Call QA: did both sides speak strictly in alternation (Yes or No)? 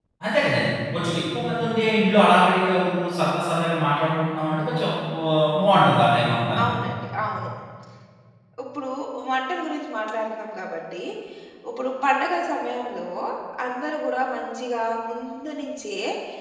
Yes